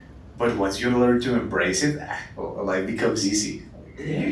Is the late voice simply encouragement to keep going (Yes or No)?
No